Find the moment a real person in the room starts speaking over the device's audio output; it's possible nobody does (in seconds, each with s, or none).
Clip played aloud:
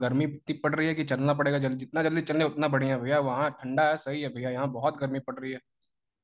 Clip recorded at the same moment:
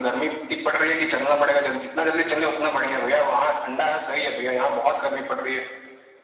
none